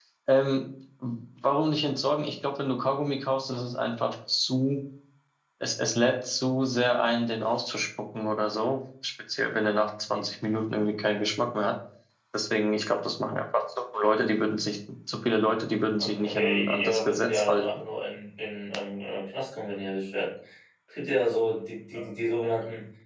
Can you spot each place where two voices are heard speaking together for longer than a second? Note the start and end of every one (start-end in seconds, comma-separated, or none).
16.0-17.6